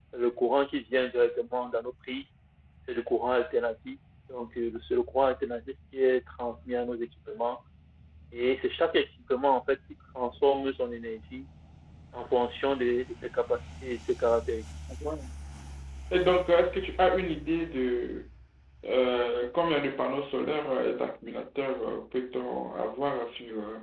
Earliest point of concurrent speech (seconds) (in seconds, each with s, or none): none